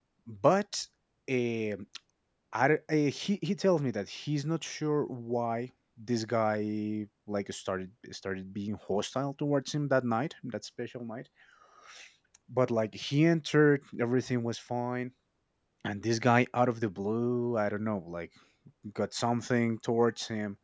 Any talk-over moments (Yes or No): No